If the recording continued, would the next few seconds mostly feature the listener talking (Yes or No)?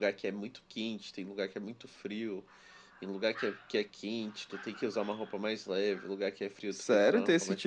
Yes